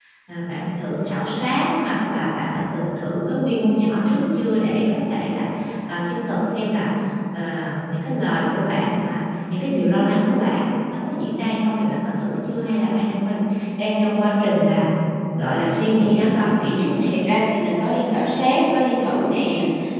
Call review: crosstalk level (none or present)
none